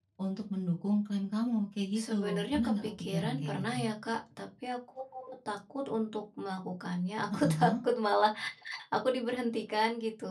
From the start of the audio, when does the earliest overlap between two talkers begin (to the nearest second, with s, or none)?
2 s